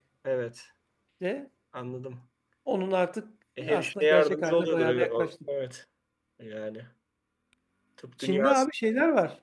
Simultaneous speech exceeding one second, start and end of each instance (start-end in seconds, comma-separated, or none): 3.6-5.3